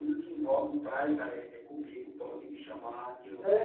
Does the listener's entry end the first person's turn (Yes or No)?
Yes